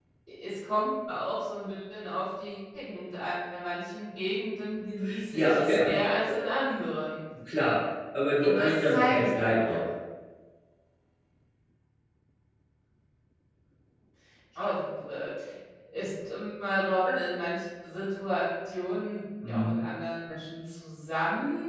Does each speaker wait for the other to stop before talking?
No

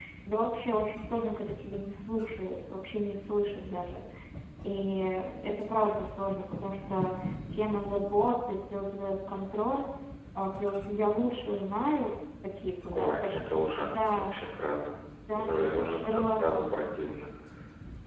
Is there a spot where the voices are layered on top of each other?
Yes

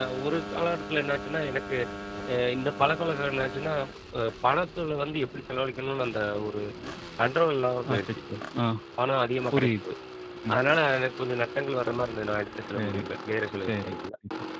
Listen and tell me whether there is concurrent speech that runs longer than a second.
No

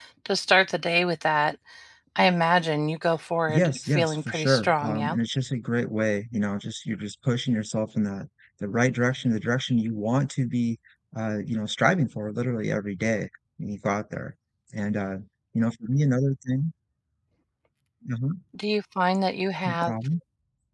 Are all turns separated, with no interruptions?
No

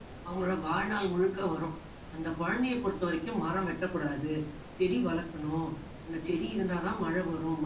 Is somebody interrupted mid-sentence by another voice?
No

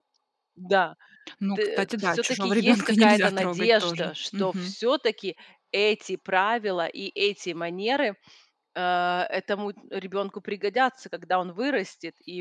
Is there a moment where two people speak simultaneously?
Yes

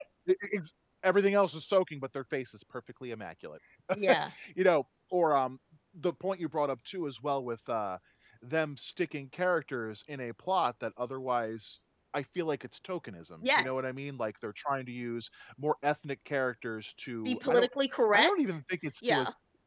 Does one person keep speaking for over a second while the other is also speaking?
No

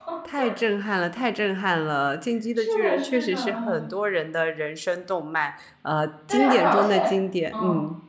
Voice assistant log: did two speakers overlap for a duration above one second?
Yes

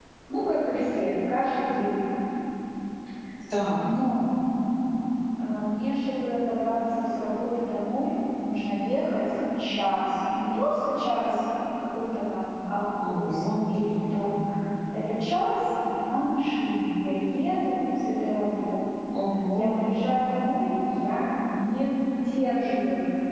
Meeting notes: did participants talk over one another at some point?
Yes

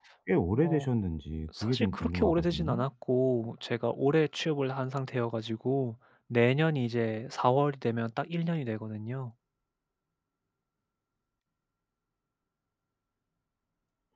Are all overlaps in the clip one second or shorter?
No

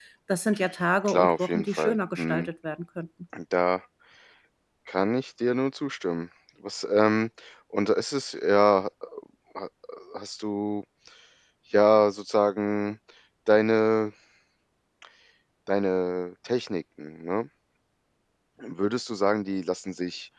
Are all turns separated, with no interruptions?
No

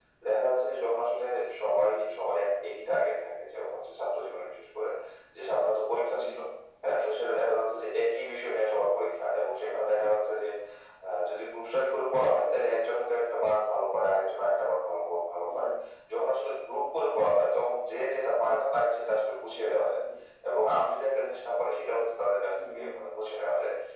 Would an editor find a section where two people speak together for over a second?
No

